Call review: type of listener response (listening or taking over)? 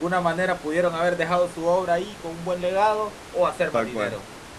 listening